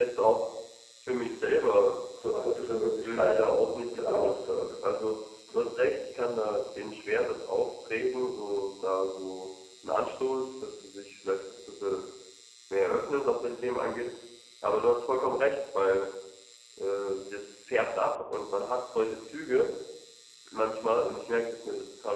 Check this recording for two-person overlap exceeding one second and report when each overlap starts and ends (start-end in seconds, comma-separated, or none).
3.0-4.7